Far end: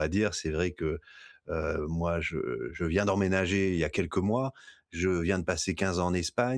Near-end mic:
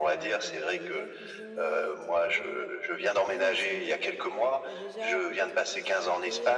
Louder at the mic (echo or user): echo